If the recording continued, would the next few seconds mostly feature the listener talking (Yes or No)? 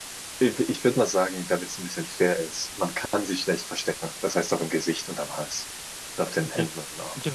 Yes